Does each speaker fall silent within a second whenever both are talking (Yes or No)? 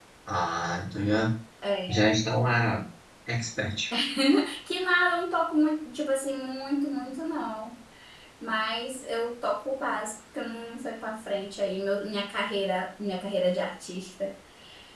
Yes